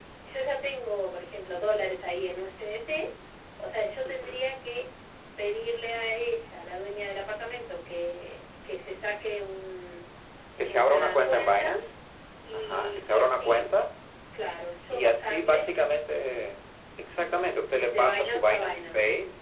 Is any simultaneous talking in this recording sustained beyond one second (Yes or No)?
Yes